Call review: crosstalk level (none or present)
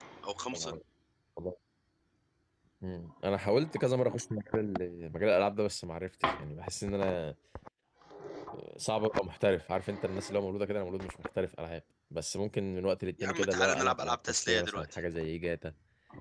present